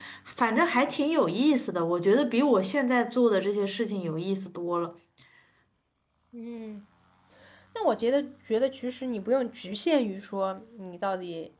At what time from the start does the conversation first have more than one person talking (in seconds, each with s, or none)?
none